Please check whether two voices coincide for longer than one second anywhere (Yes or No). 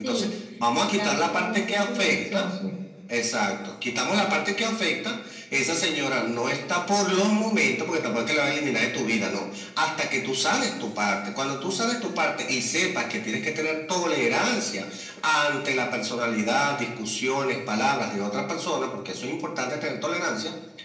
Yes